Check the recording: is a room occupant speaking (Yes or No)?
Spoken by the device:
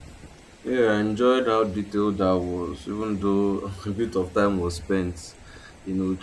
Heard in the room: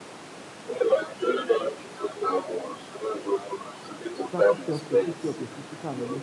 Yes